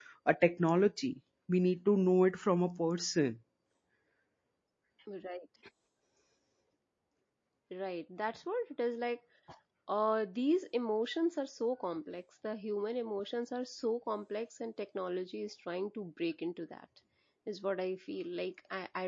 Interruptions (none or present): none